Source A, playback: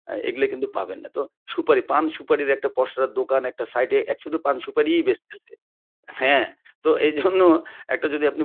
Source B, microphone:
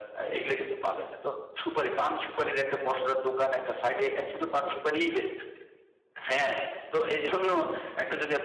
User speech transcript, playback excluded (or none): none